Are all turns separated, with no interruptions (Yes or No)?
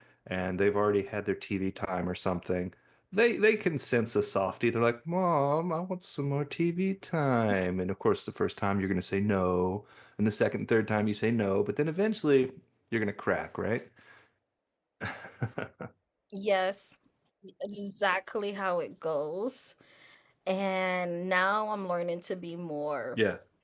Yes